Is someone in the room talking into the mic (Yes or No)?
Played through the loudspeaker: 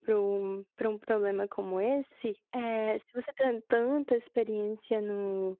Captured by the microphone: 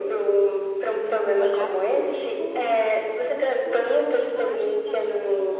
Yes